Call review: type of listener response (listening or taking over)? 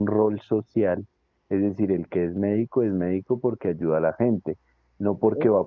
listening